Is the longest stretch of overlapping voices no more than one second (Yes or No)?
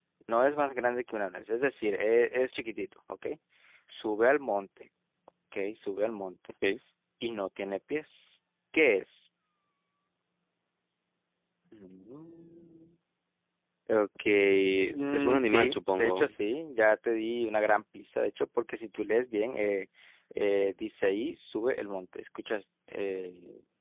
No